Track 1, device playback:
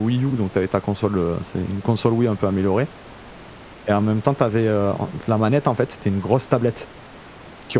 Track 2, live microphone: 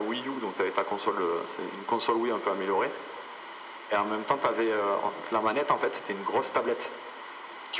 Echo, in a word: present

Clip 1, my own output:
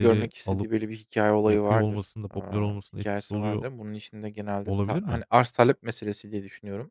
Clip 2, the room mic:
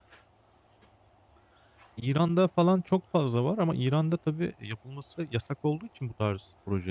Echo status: none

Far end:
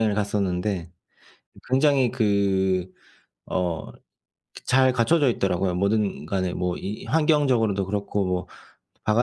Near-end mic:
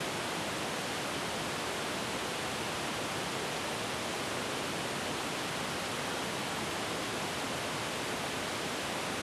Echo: none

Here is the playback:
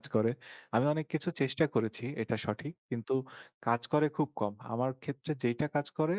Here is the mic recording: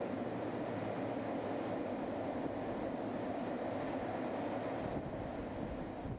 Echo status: none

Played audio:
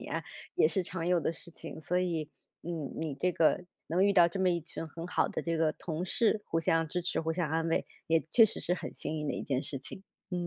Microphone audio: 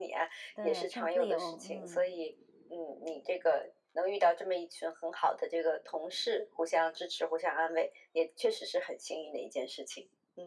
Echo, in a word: present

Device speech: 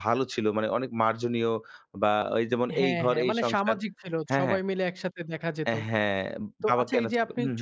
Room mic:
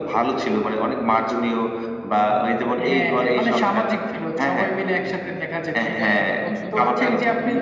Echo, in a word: present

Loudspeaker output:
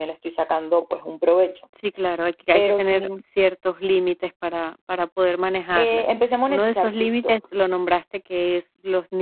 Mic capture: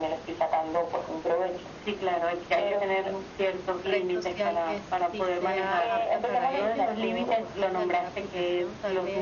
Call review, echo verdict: present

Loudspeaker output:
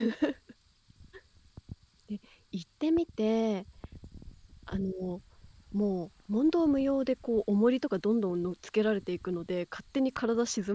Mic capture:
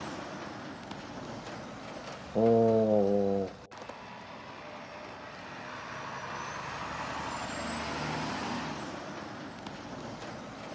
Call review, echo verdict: none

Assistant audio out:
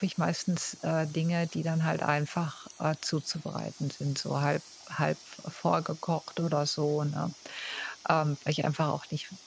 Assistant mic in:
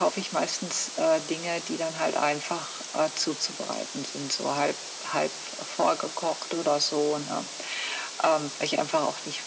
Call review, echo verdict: present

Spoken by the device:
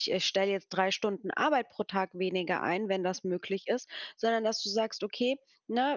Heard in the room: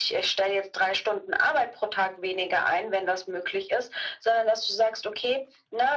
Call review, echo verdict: present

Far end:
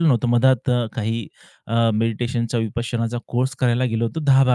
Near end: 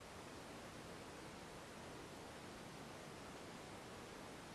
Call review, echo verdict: none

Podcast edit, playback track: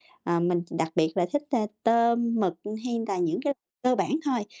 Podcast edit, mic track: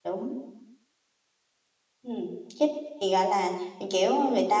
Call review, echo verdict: none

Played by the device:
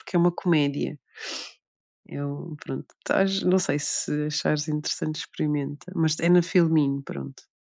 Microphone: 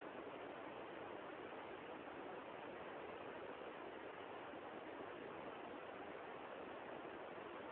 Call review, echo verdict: none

